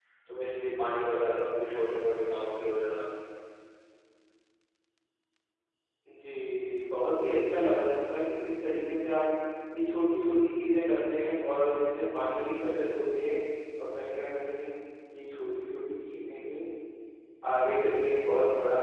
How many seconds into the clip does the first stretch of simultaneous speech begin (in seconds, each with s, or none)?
none